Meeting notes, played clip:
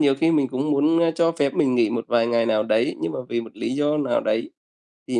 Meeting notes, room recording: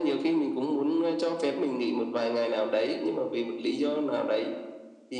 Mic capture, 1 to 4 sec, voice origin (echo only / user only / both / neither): echo only